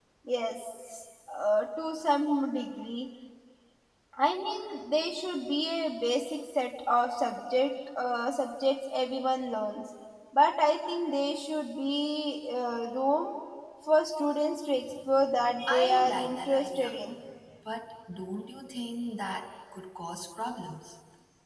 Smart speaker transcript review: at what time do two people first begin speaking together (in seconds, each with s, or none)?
15.6 s